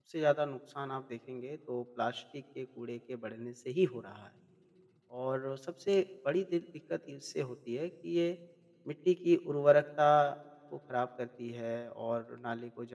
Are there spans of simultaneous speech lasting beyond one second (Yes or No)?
No